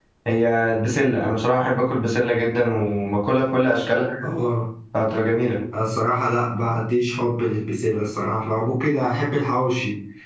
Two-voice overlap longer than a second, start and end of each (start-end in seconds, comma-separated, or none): none